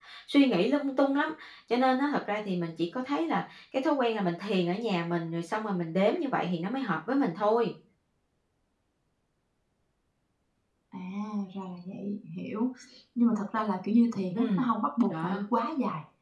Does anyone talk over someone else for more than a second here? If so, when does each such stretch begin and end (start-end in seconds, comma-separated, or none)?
none